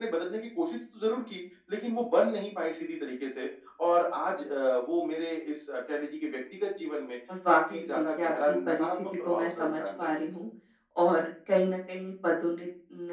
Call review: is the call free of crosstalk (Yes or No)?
No